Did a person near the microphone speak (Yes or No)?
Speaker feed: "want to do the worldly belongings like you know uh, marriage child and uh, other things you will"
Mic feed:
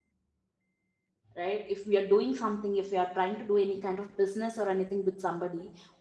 Yes